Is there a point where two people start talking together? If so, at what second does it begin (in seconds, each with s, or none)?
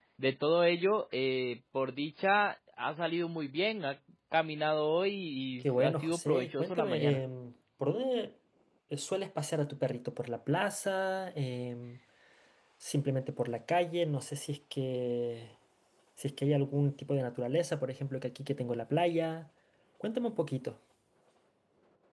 5.6 s